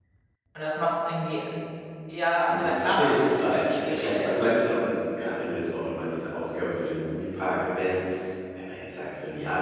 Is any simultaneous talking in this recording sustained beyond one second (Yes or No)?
Yes